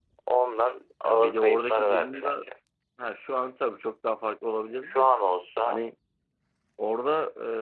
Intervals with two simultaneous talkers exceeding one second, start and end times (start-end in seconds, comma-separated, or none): 1.0-2.5